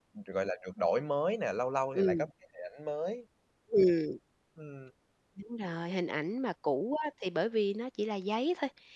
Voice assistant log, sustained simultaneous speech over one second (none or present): none